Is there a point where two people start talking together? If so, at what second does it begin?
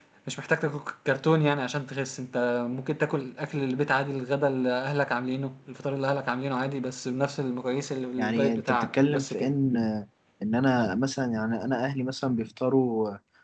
8 s

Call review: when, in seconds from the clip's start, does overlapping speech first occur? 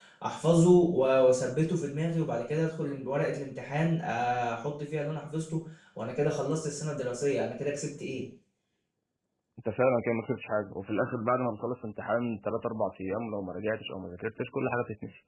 none

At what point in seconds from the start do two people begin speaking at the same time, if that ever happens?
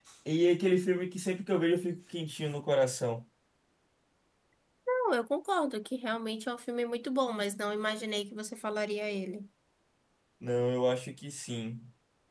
none

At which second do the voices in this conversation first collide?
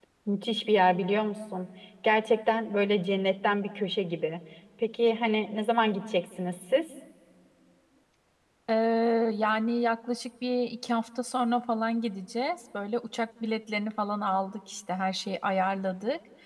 none

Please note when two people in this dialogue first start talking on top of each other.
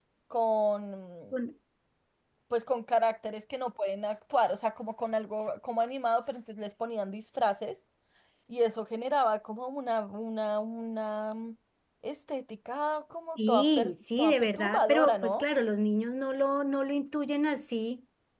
13 s

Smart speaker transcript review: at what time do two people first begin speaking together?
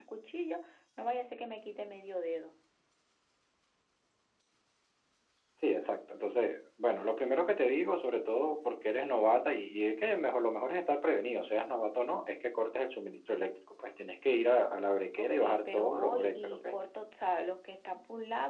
15 s

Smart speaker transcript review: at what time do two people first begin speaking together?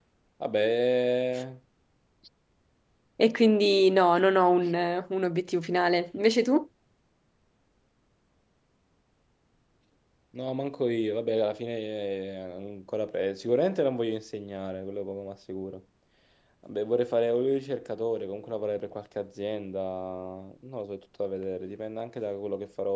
none

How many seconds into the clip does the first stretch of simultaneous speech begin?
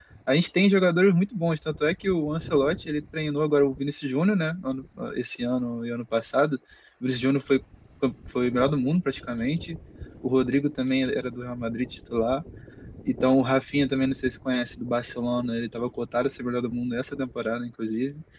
none

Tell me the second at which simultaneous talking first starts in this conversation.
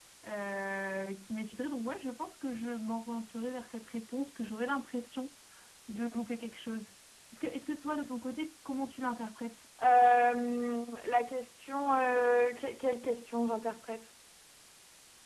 none

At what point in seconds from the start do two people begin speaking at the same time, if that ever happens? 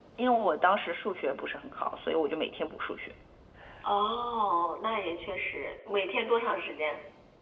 none

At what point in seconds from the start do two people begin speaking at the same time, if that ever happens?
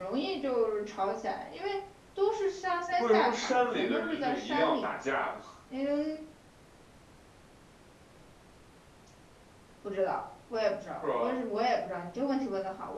3 s

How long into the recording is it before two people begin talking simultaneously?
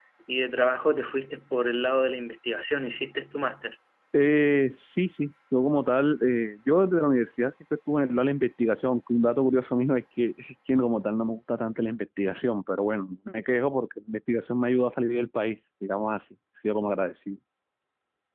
none

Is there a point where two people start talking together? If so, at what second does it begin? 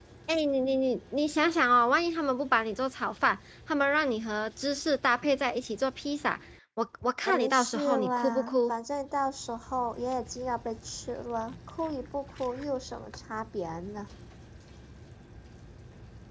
7 s

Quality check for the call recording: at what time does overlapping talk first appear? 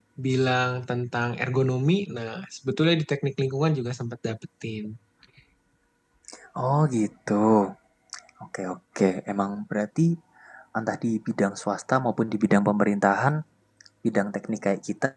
none

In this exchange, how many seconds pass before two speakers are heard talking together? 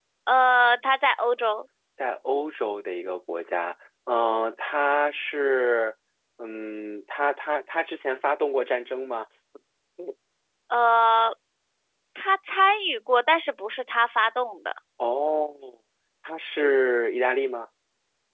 none

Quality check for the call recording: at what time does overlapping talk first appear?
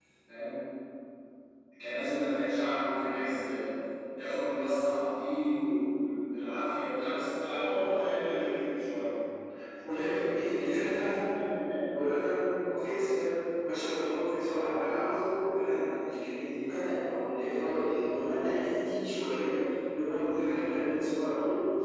10 s

